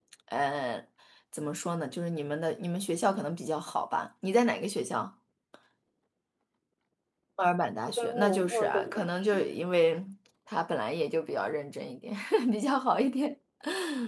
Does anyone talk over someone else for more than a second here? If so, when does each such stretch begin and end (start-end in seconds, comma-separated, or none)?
7.9-9.6